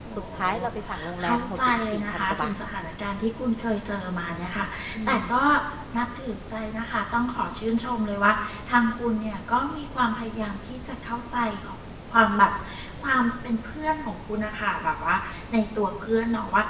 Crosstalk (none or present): present